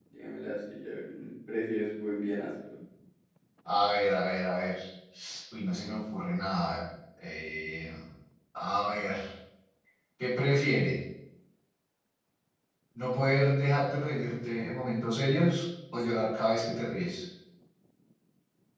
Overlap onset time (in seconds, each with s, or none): none